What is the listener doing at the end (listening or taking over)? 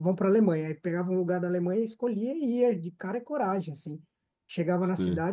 listening